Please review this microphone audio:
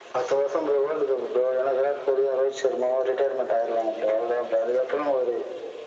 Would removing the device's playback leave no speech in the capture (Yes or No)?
Yes